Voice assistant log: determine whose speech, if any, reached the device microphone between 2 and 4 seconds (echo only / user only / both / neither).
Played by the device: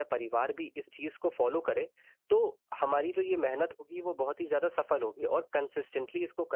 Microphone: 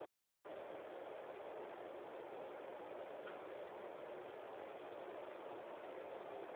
neither